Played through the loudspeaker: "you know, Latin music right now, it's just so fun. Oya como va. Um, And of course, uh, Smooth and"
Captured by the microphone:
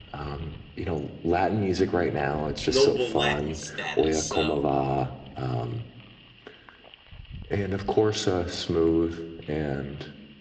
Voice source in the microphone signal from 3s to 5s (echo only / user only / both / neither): both